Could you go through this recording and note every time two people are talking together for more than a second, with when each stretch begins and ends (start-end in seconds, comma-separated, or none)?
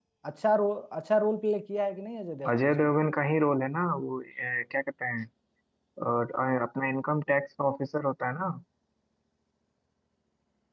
none